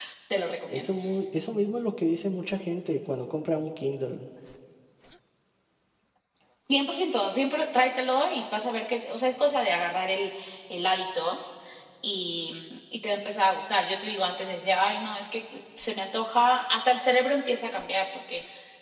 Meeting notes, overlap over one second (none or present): none